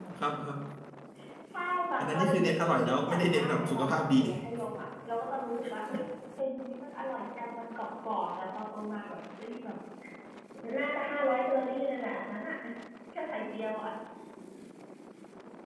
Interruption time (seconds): 2.0 s

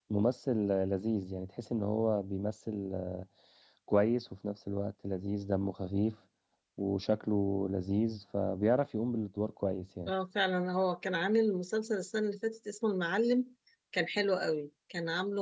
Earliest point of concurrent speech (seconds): none

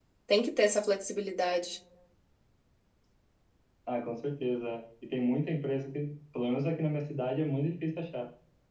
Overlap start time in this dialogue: none

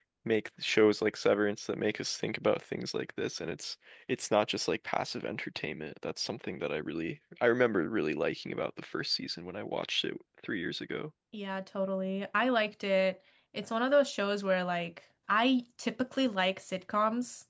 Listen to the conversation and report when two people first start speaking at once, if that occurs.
none

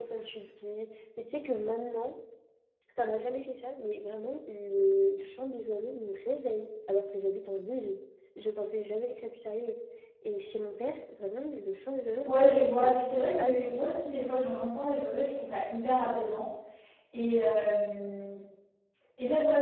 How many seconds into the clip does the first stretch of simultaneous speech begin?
12.2 s

